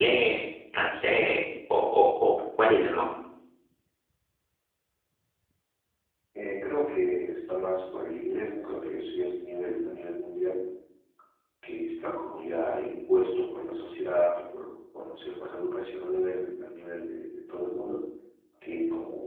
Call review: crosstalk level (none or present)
none